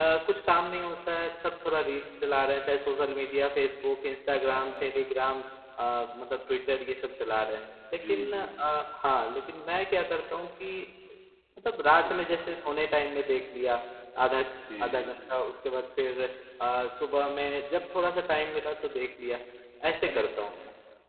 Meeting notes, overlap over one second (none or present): none